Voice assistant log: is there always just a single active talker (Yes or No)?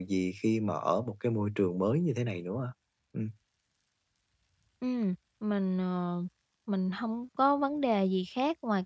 Yes